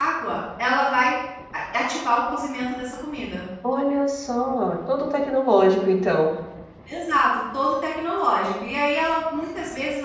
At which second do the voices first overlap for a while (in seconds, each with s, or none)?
none